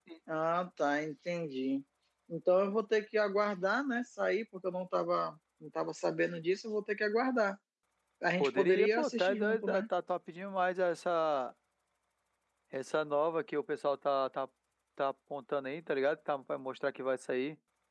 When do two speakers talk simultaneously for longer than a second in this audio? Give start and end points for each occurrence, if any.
8.4-9.8

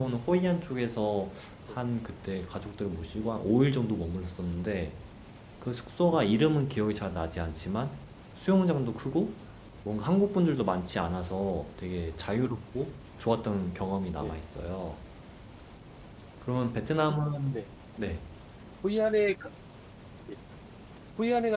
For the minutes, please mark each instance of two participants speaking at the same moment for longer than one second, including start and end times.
none

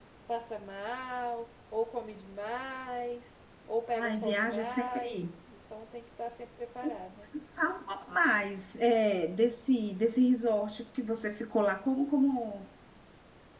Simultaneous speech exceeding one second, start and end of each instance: 3.9-5.3

